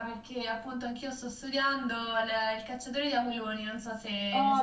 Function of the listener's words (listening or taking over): taking over